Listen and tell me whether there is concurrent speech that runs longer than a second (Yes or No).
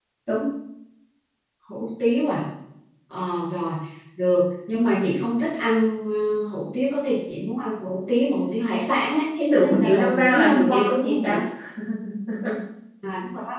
Yes